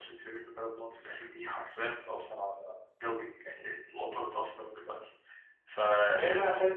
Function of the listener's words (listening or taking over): taking over